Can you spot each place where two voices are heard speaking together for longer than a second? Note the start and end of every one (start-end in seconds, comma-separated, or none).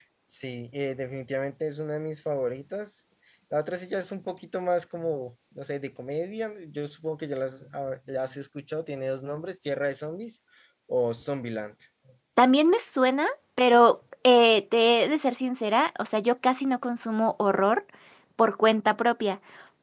none